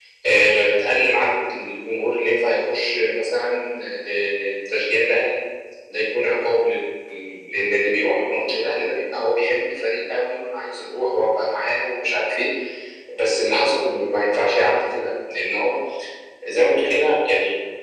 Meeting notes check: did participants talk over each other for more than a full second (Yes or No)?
No